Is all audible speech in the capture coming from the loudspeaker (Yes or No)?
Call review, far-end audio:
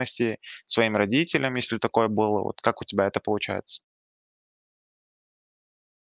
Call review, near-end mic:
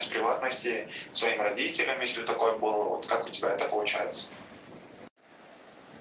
Yes